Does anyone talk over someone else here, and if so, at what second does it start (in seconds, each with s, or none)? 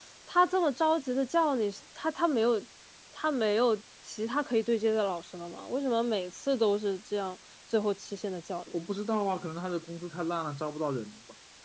none